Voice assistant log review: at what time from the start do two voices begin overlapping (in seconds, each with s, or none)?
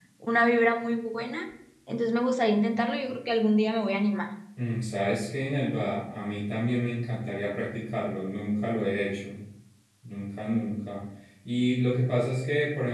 none